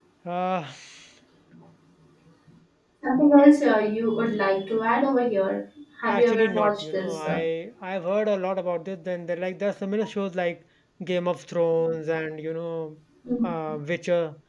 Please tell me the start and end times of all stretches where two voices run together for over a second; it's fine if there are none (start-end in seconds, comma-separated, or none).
6.1-7.4